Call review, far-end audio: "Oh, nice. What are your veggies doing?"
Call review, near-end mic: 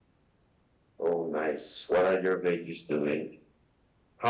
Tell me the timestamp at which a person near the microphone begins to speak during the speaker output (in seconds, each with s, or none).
none